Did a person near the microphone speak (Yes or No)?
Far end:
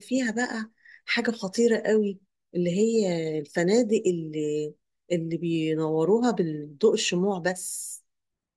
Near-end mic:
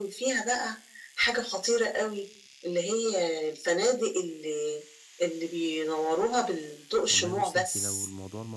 Yes